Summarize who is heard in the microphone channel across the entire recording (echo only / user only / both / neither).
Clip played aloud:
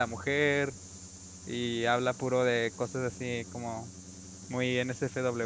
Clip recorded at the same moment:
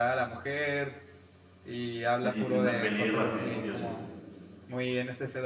both